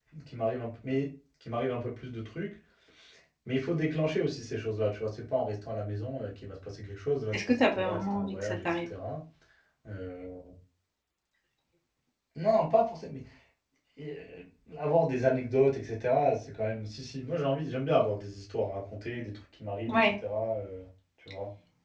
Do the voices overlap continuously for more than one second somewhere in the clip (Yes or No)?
Yes